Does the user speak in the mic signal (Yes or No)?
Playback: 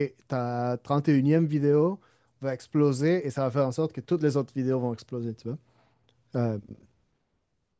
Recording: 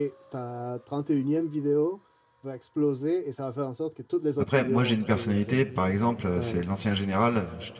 Yes